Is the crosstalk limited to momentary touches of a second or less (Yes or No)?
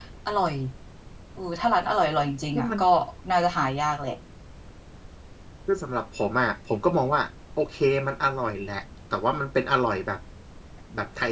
Yes